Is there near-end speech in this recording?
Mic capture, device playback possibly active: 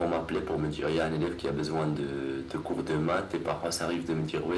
No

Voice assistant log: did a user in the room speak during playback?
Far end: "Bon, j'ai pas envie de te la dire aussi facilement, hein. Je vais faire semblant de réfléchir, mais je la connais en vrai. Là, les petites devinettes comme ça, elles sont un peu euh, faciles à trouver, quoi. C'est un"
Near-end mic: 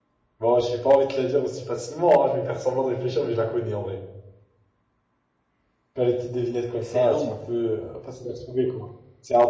Yes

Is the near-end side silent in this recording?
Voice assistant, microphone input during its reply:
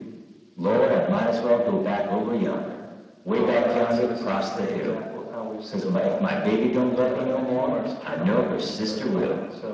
Yes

